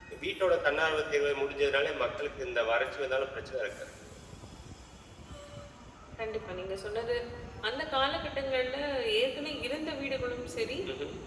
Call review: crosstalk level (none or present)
none